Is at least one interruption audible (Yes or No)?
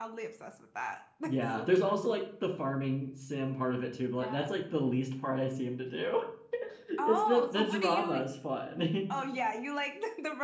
Yes